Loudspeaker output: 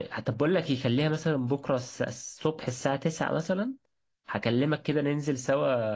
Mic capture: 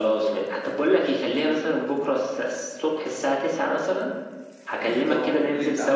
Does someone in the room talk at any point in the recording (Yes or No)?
Yes